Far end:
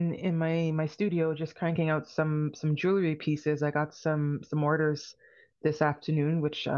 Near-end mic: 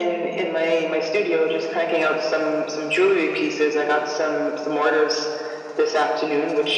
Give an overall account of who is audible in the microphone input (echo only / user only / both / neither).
echo only